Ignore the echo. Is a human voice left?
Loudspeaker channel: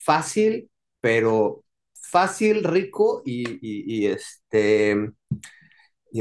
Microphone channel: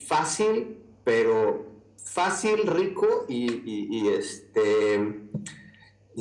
No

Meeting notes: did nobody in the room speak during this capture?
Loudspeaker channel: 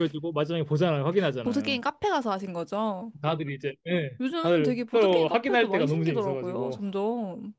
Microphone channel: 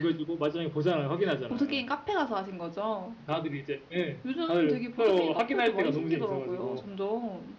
Yes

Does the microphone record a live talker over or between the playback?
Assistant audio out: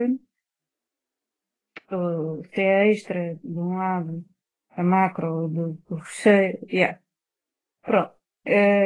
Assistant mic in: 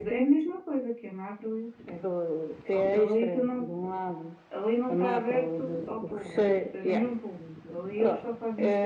Yes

